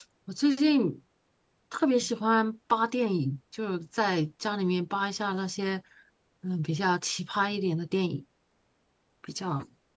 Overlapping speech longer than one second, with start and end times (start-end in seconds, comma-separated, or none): none